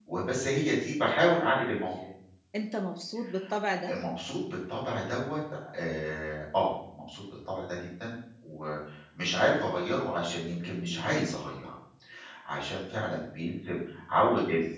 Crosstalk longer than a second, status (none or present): none